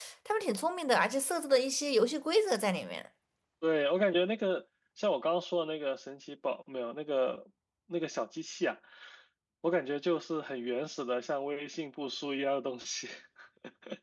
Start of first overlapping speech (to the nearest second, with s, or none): none